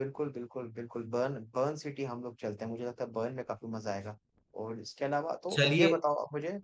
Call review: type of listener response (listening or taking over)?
listening